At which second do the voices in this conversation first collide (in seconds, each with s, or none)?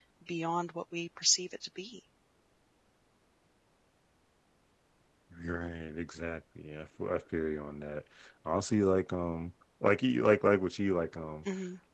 none